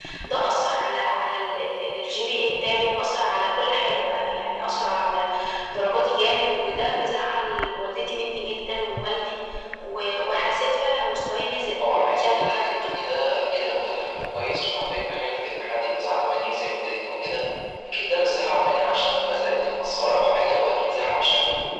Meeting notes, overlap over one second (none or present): present